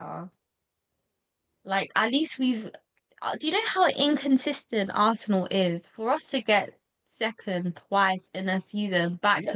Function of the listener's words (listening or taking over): taking over